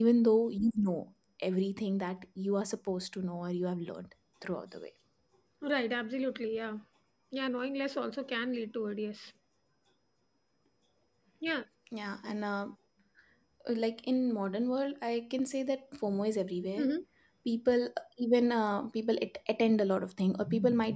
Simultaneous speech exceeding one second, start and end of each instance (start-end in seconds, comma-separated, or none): none